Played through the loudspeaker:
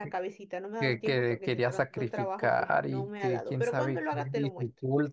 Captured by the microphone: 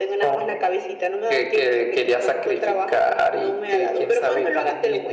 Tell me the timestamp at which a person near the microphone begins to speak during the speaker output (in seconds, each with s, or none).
none